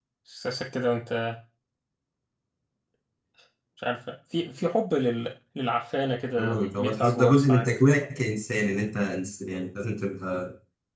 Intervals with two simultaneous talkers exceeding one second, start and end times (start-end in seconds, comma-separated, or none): 6.4-7.7